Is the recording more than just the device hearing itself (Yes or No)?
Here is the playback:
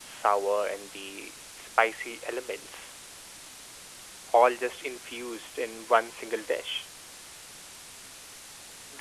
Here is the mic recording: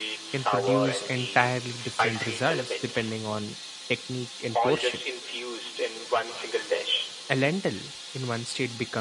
Yes